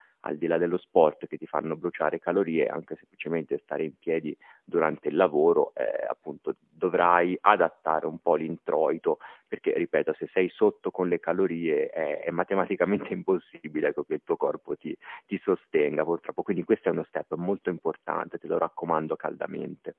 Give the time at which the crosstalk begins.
none

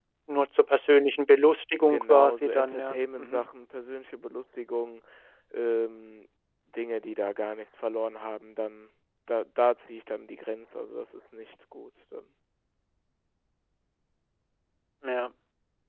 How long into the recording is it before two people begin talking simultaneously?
1.8 s

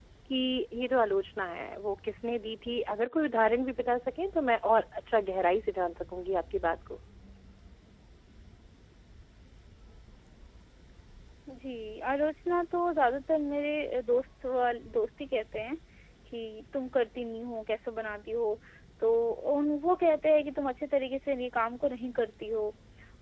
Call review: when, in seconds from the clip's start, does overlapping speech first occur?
none

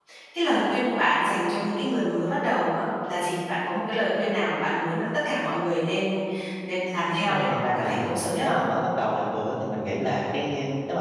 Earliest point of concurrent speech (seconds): 7.3 s

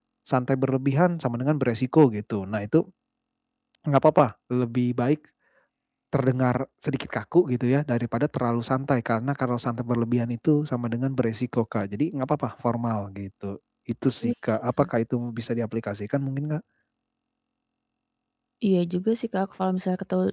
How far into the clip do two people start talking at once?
none

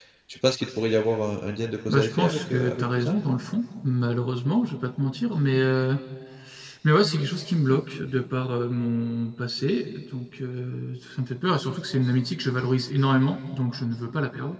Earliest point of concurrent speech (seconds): 1.9 s

